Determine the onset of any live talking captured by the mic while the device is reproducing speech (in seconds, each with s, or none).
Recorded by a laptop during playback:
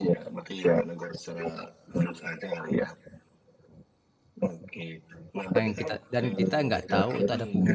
5.6 s